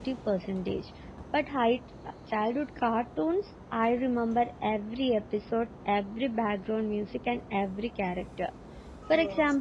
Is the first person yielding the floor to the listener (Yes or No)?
No